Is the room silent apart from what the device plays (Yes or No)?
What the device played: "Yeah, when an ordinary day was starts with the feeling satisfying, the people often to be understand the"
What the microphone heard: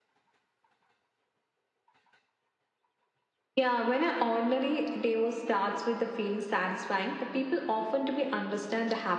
Yes